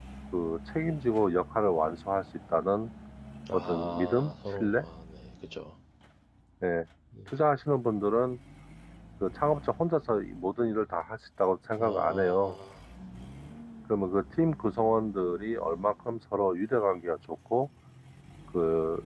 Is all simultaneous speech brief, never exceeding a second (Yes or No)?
No